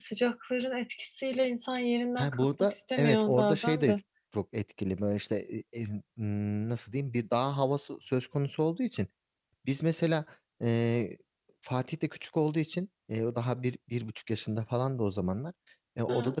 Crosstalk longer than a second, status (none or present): present